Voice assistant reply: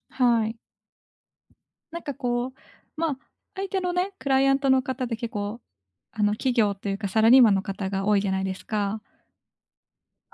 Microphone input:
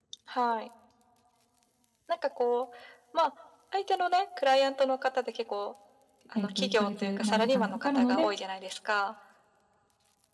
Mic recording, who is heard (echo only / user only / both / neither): both